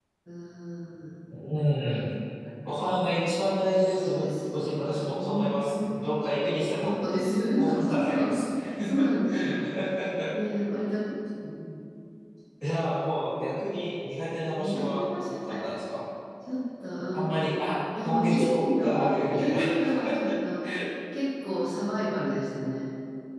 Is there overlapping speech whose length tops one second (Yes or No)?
Yes